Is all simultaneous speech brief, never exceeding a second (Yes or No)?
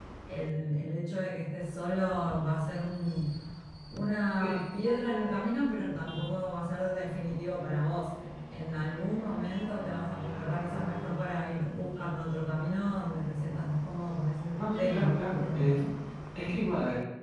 No